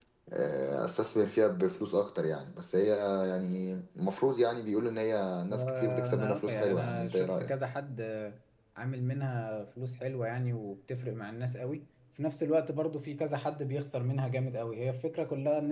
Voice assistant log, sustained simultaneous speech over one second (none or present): present